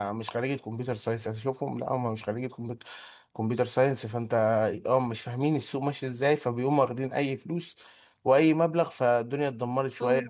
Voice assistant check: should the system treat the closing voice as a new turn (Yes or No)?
Yes